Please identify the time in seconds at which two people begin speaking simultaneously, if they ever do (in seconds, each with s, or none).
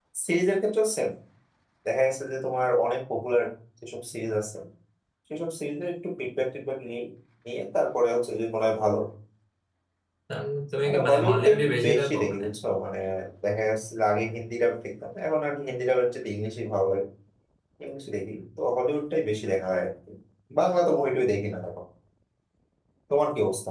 10.8 s